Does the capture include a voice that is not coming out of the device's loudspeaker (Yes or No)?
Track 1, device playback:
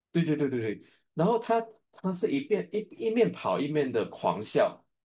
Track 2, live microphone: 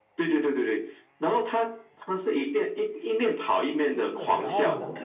Yes